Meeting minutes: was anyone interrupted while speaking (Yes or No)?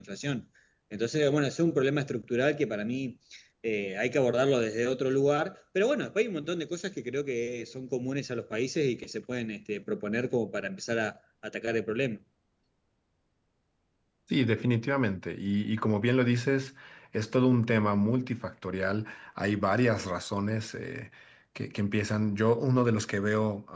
No